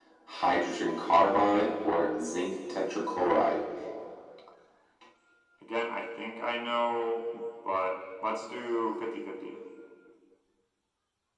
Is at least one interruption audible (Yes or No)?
No